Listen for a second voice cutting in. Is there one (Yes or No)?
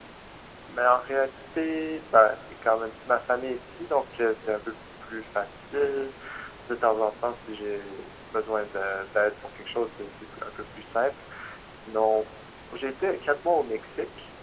No